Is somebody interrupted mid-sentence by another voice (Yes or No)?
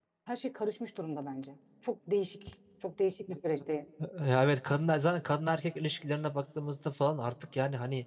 No